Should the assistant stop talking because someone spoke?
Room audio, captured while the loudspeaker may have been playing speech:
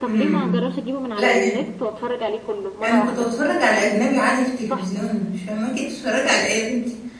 Yes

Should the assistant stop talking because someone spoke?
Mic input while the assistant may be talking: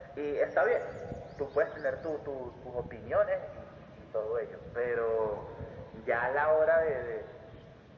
No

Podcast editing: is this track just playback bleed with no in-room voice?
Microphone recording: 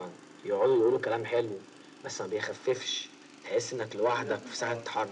No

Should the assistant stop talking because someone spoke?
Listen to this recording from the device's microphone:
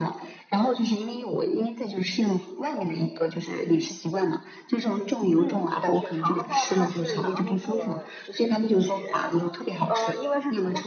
No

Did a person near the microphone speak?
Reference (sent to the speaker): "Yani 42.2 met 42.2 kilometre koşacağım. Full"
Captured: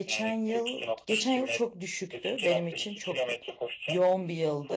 Yes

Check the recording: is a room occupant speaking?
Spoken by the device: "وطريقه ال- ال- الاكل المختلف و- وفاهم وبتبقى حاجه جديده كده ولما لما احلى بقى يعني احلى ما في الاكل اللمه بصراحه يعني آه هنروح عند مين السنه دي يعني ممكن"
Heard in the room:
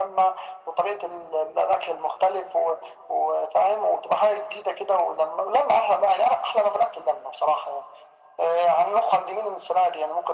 No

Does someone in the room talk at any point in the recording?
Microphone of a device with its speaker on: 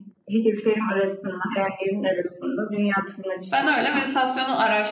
Yes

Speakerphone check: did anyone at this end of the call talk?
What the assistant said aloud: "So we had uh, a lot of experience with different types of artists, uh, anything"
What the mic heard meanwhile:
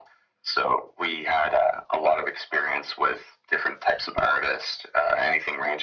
No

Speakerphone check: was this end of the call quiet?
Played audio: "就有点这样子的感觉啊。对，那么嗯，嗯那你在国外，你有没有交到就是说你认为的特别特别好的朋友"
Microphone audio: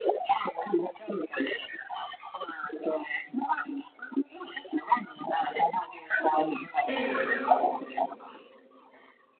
No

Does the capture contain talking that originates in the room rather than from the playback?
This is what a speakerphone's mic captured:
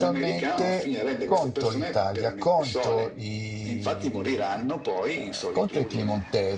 Yes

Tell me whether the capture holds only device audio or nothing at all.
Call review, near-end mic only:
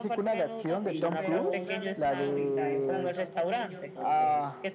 No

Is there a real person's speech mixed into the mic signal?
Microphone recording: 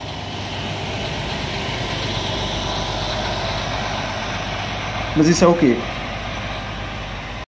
Yes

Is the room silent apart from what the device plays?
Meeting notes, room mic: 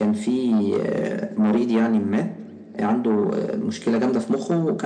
Yes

